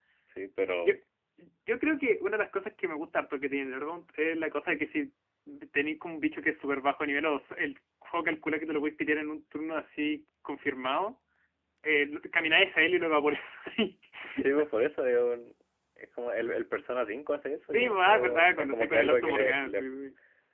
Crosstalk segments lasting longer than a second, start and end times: 17.7-19.9

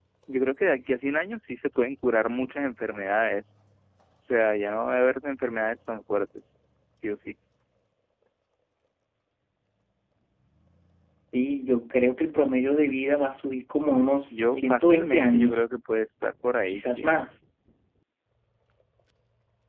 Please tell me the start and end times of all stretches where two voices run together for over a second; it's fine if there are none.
14.3-15.6

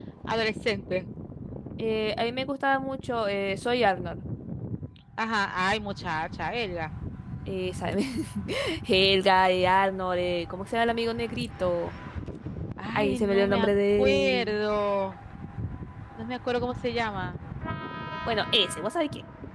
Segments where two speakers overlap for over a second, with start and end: 13.0-14.6

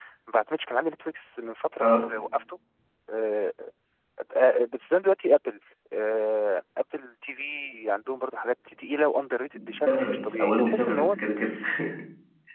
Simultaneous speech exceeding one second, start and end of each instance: 9.8-11.2

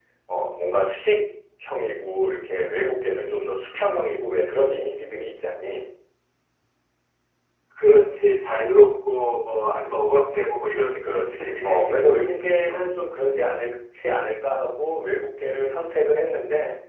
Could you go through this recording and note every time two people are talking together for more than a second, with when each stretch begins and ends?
11.0-12.9

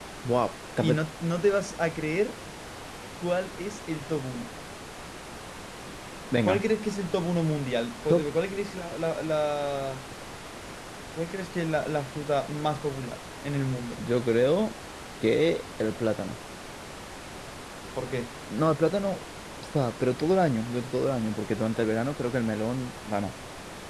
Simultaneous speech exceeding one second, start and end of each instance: none

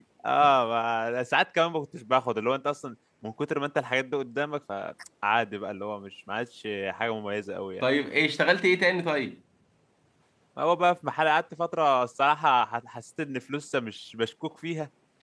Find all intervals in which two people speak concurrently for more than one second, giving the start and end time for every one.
none

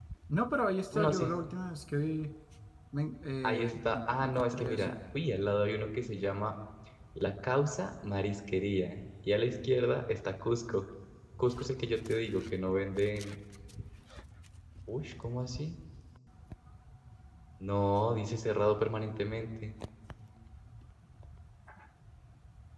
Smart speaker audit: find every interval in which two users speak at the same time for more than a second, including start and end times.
3.4-4.9

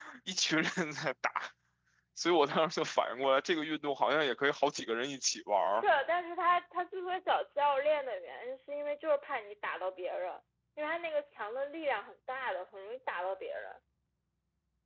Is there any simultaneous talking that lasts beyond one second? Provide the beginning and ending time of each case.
none

